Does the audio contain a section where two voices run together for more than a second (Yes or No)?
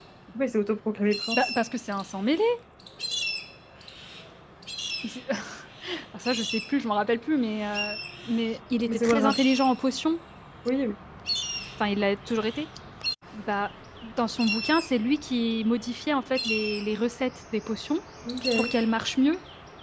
No